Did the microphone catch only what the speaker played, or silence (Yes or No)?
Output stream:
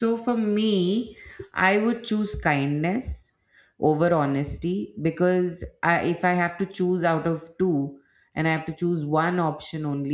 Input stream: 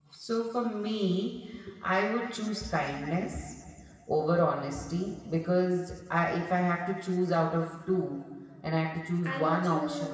No